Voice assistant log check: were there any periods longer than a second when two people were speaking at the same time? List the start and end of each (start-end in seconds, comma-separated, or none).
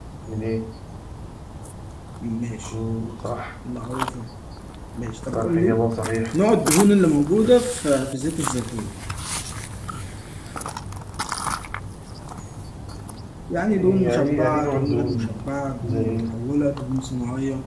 13.8-15.3